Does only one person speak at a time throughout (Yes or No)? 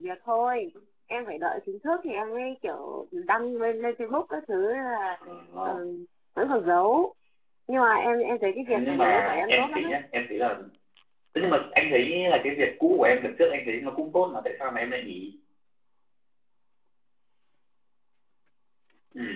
No